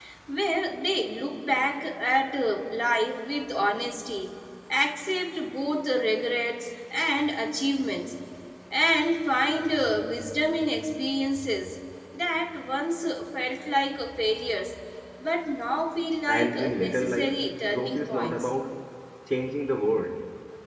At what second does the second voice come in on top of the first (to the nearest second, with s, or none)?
16 s